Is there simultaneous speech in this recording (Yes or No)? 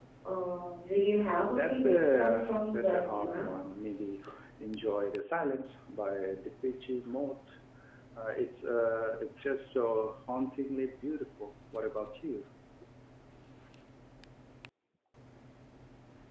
Yes